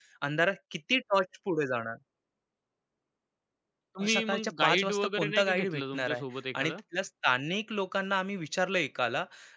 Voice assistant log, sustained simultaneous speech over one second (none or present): present